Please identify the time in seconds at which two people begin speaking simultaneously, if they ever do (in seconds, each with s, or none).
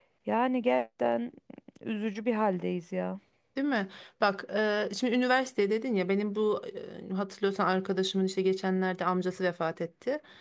none